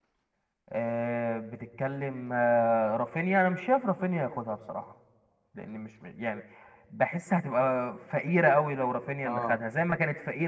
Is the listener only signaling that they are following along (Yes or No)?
Yes